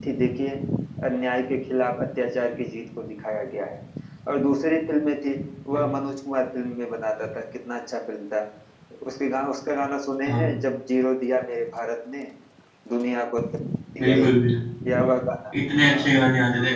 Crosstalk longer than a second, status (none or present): none